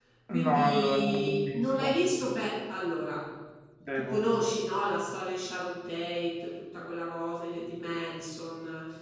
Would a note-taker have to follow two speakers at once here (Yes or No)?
Yes